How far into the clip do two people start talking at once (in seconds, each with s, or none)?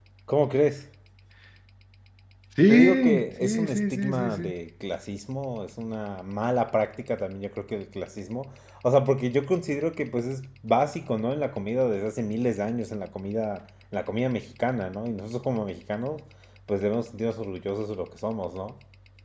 2.7 s